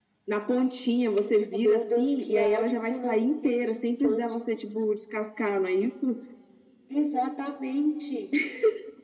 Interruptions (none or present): present